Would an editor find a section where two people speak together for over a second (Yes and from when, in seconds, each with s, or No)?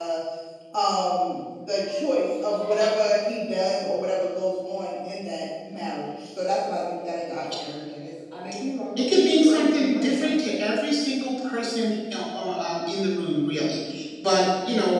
Yes, from 9.0 s